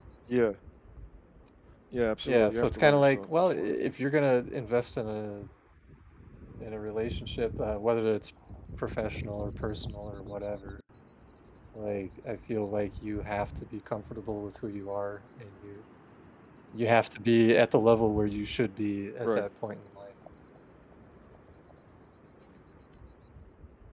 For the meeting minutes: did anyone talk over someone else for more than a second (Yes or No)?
Yes